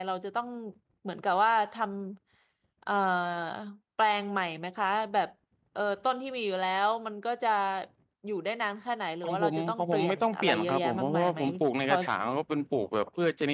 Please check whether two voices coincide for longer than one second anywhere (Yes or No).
Yes